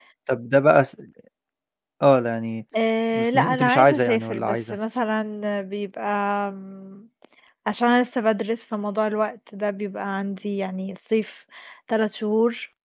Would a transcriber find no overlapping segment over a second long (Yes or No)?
No